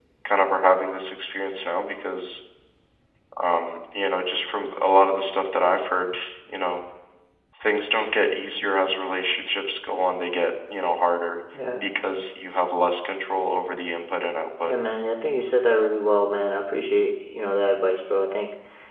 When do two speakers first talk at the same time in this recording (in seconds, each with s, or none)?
none